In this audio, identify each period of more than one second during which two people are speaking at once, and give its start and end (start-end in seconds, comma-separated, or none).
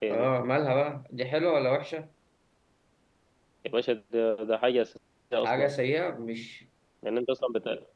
none